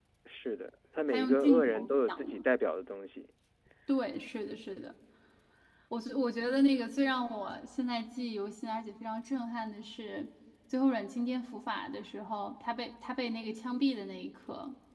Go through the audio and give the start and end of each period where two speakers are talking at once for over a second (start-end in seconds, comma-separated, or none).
1.1-2.4